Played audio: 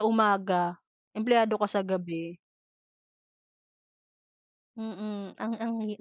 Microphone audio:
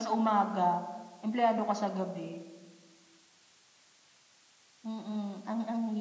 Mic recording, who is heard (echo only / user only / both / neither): echo only